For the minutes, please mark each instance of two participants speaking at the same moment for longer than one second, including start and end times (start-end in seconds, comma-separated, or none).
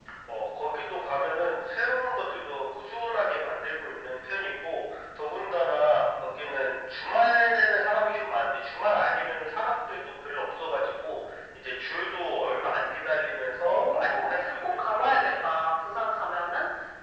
13.6-15.3